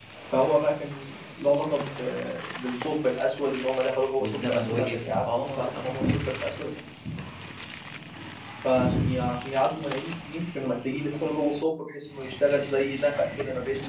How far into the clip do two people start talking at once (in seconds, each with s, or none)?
4.2 s